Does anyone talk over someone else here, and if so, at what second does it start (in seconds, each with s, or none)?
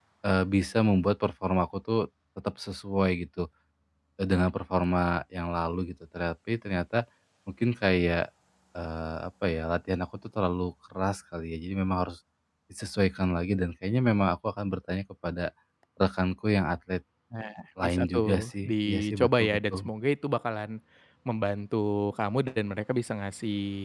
17.8 s